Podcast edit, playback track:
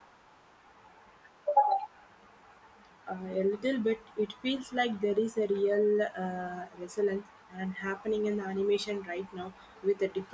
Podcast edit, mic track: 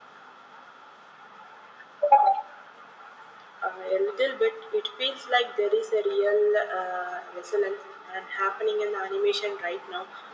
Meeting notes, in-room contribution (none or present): none